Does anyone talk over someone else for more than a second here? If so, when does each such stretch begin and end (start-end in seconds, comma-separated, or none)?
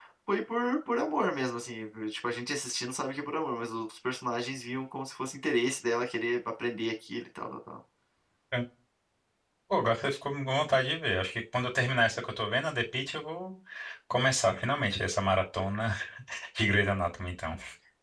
none